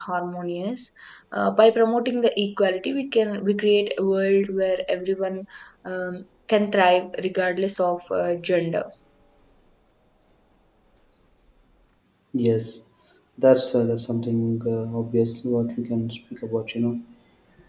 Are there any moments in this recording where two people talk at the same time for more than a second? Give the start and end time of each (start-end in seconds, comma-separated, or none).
none